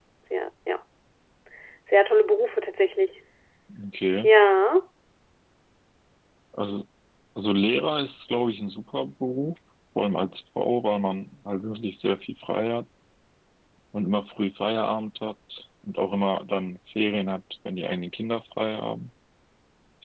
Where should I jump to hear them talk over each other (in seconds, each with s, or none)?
none